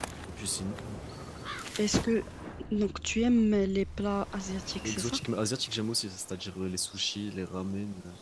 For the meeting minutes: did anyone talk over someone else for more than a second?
No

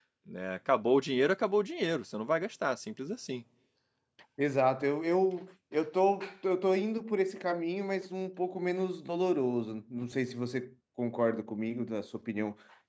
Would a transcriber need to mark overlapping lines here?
No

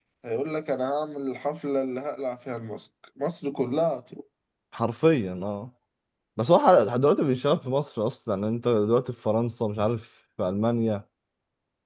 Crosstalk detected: No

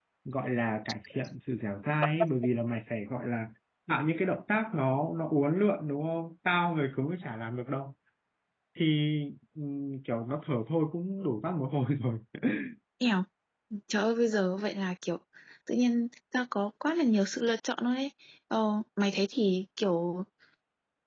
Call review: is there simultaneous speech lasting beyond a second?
No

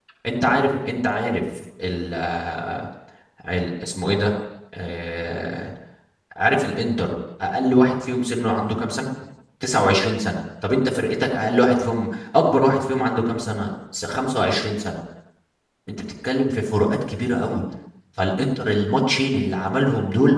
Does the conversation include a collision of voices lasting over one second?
No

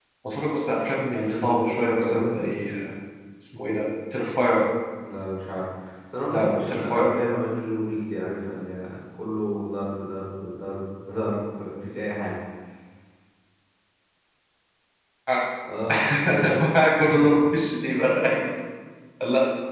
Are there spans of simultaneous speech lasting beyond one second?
Yes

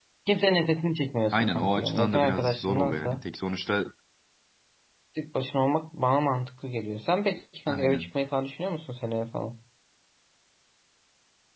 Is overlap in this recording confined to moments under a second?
No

